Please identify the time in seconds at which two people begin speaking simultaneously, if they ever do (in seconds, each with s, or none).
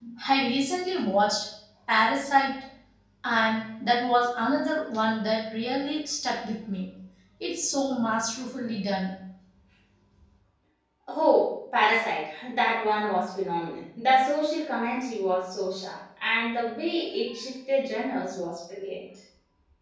none